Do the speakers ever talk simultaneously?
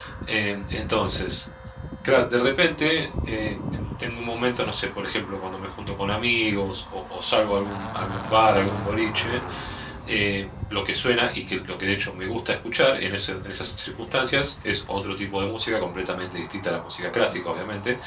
No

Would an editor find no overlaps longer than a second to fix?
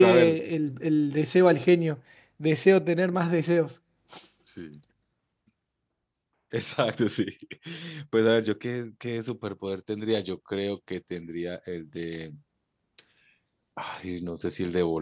Yes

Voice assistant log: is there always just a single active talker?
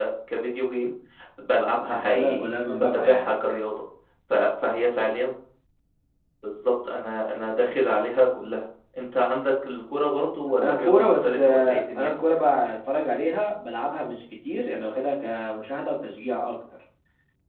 No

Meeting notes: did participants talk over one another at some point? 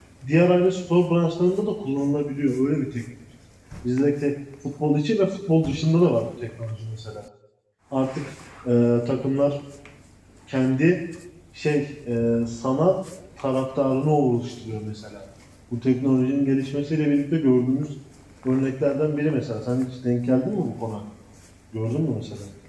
No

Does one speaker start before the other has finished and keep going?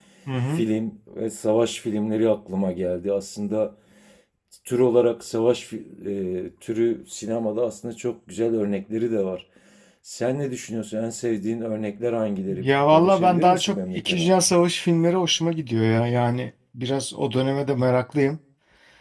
Yes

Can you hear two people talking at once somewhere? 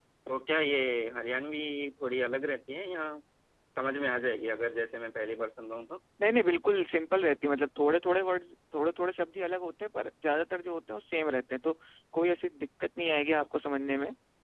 No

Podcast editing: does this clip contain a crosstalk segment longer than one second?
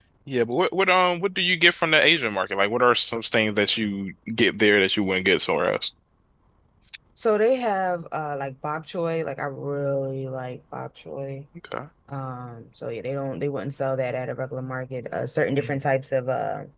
No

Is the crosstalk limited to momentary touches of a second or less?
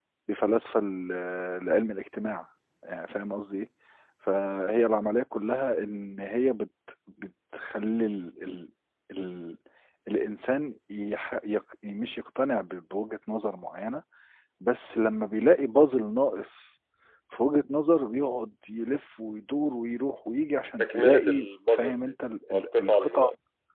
No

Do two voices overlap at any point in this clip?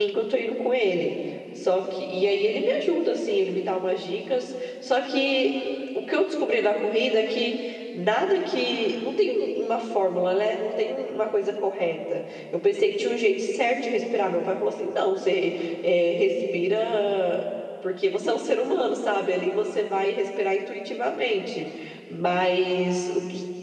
No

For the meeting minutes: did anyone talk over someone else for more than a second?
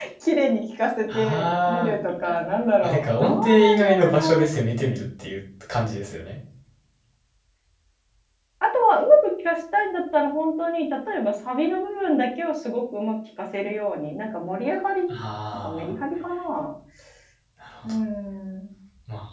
Yes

